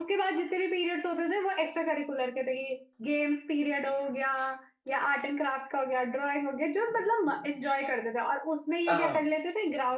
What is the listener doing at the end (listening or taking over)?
listening